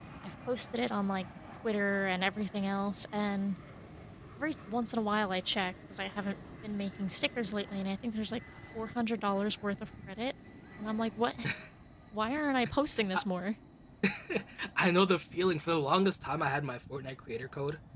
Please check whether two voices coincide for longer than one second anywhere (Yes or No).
No